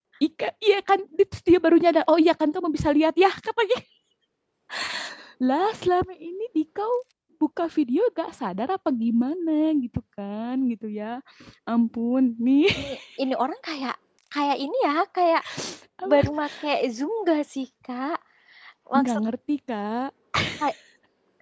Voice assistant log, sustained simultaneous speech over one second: none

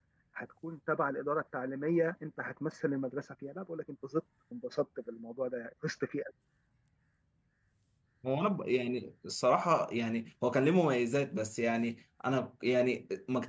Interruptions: none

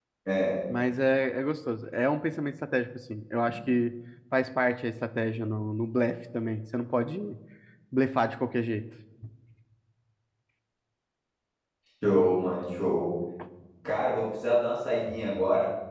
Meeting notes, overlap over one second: none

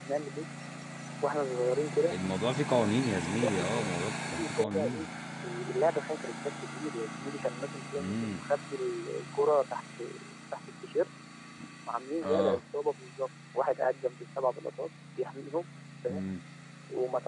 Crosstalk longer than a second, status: present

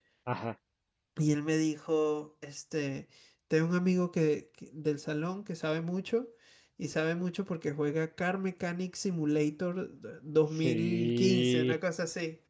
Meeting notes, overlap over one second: present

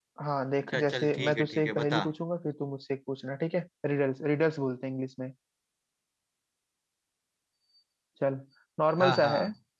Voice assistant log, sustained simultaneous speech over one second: present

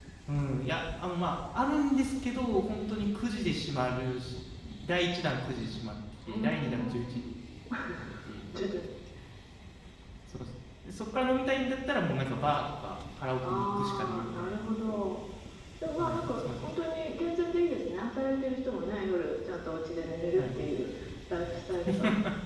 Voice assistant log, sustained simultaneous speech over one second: present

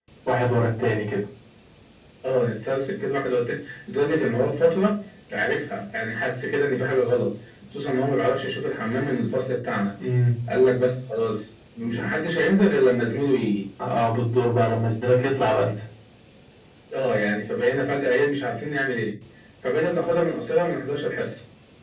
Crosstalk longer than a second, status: none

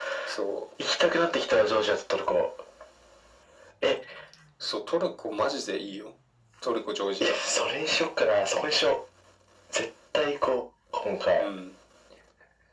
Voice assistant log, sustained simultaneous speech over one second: none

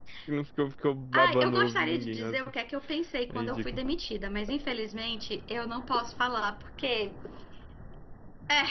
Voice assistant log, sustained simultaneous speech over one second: present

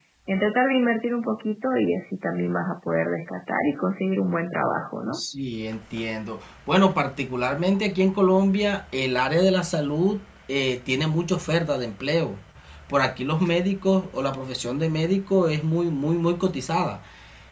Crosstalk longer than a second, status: none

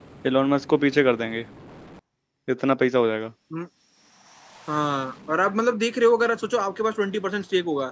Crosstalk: none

